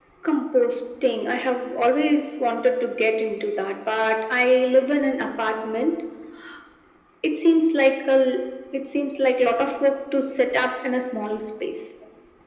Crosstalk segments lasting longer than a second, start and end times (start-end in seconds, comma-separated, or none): none